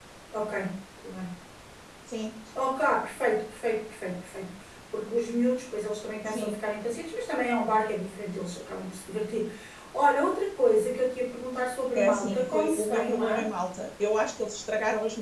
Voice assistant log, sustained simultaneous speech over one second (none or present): present